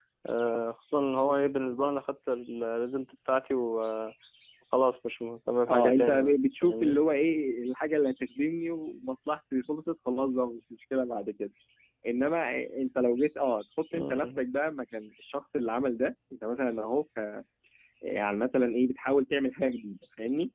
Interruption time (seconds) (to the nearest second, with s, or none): 6 s